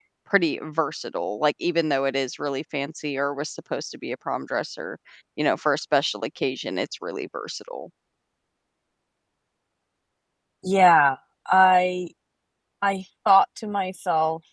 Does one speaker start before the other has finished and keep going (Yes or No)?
No